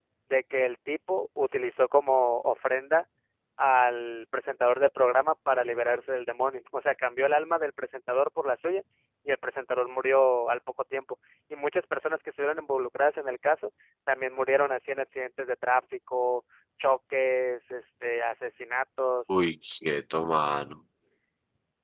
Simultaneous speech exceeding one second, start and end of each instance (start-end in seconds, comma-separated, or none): none